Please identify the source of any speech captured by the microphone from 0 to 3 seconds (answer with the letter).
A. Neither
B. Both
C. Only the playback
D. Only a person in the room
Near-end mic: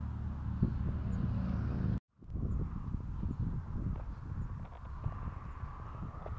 A